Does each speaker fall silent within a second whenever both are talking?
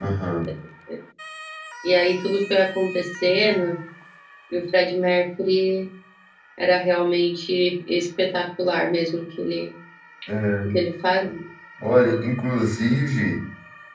Yes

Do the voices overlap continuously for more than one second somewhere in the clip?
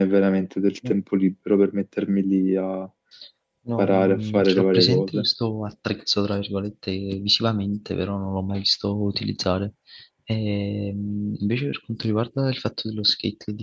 Yes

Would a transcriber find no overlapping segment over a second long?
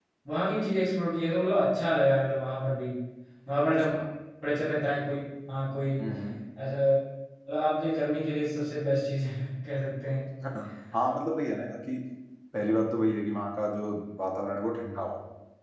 Yes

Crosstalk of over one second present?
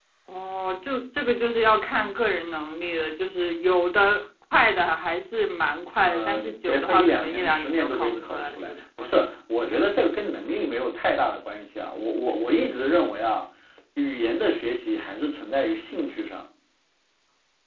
Yes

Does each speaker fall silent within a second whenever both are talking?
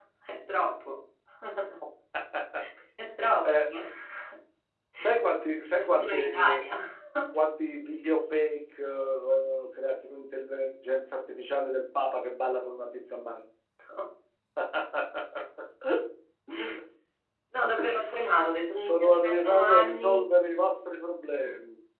No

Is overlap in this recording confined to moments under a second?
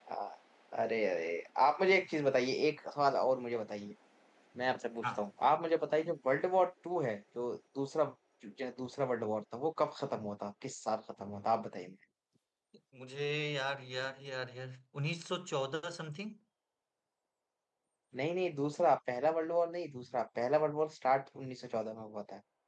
Yes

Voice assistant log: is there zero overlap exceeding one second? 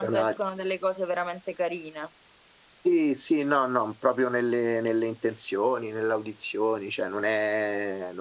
Yes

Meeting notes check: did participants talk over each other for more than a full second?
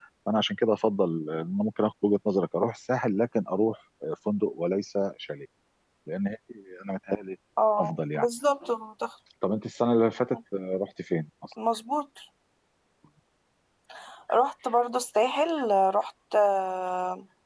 No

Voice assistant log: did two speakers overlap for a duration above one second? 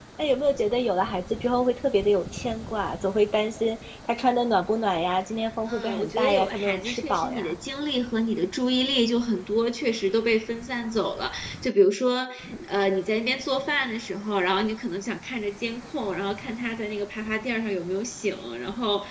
Yes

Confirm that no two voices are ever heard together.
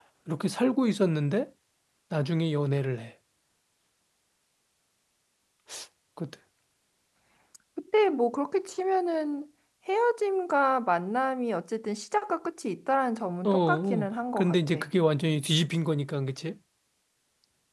No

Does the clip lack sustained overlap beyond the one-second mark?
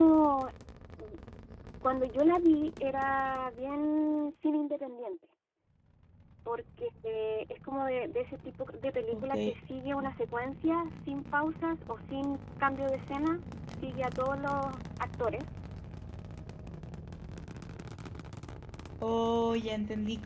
Yes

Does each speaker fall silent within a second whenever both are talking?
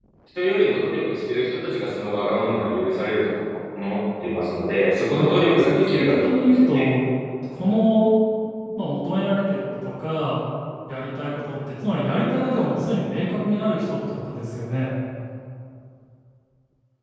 No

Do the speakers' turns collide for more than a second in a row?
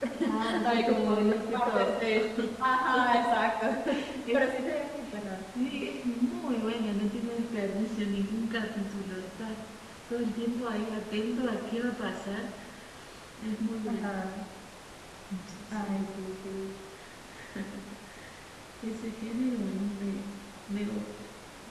Yes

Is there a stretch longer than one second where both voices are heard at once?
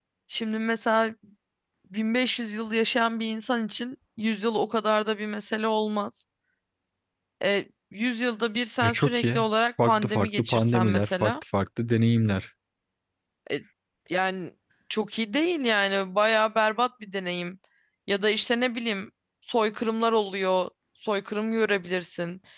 Yes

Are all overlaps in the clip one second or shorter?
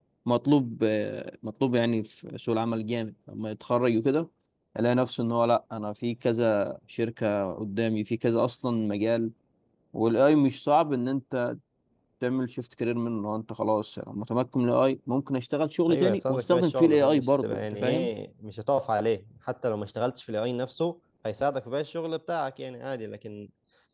No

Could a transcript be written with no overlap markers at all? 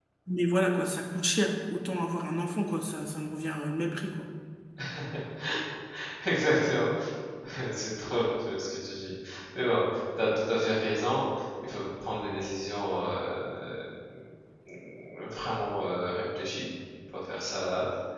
Yes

